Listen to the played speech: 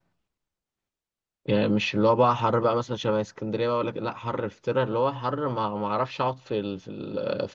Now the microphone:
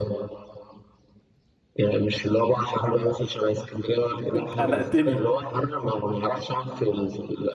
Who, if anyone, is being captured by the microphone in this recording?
both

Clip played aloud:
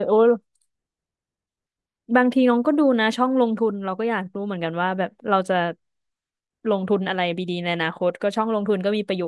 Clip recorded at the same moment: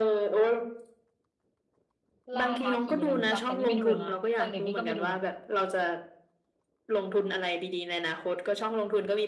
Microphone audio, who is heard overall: both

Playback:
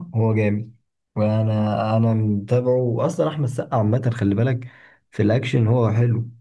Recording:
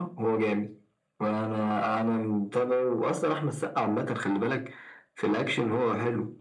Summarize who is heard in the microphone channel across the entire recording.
echo only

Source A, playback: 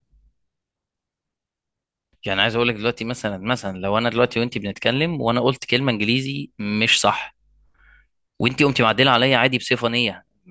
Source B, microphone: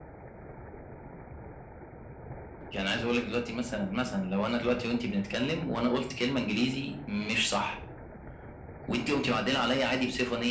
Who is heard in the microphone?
echo only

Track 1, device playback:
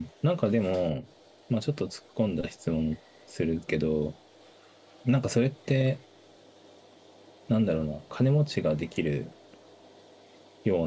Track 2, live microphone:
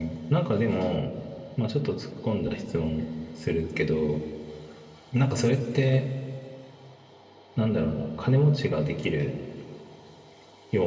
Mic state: echo only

